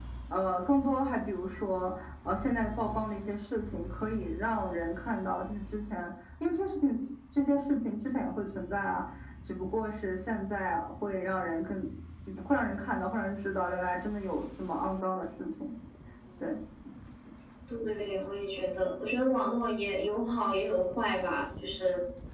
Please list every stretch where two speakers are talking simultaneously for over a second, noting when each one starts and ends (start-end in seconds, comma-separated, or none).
none